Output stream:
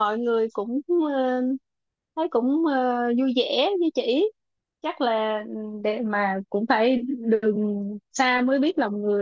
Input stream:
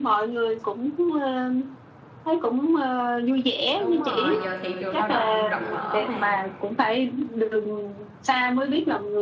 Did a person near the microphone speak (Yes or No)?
Yes